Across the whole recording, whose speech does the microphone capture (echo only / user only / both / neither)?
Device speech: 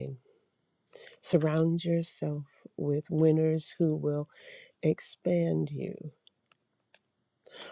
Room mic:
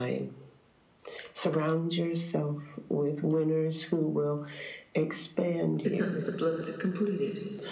both